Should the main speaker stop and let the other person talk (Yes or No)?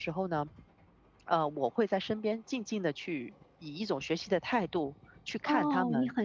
Yes